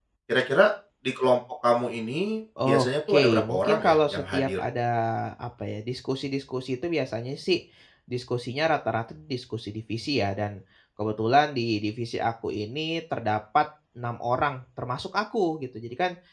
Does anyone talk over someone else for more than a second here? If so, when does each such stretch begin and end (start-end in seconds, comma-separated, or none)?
2.6-4.6